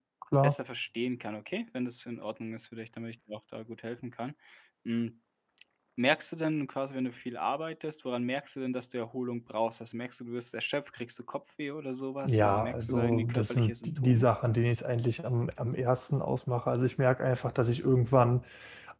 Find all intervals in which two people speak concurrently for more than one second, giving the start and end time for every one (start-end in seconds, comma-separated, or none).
12.2-14.2